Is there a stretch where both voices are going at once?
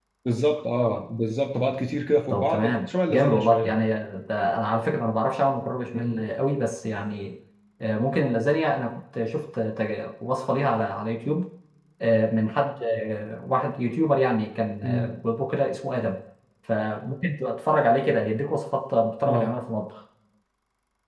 Yes, from 2.3 s

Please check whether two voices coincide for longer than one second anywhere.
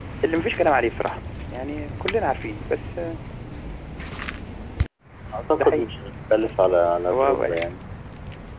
No

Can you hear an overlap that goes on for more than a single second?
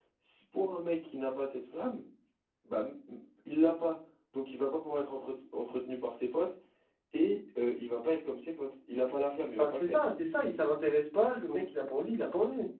No

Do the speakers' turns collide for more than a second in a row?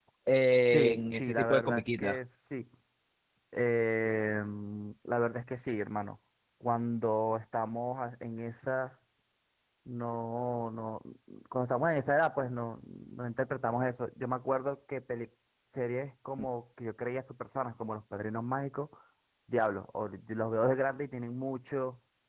Yes, from 0.7 s

